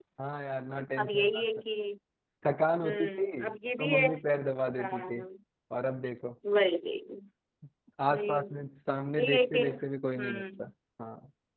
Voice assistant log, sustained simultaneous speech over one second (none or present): present